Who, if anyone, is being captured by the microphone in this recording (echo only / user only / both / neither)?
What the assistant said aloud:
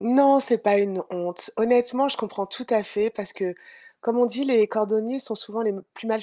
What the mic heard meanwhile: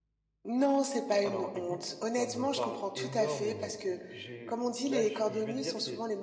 both